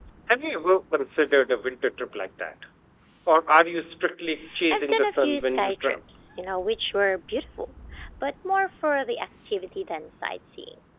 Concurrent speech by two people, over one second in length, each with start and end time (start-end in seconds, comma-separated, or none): 4.7-6.0